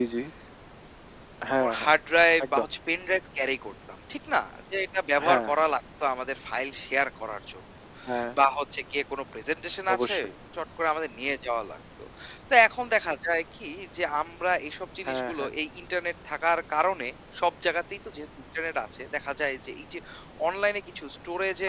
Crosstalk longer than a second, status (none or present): none